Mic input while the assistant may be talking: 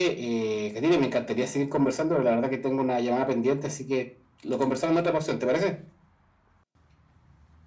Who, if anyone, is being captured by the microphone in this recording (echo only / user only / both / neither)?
echo only